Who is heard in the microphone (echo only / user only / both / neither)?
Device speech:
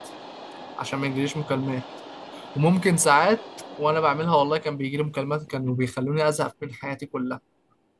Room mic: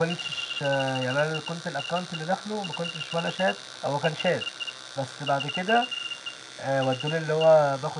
user only